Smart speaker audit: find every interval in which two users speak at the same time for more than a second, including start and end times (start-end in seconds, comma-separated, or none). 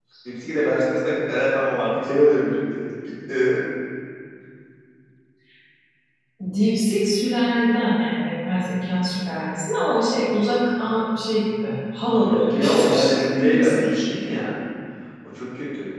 12.2-14.0